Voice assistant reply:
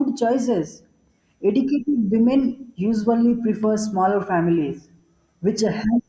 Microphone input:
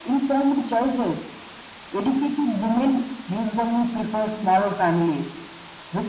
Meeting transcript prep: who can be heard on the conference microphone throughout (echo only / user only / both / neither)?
echo only